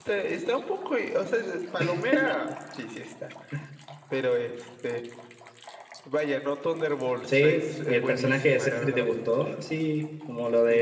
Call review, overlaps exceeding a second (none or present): present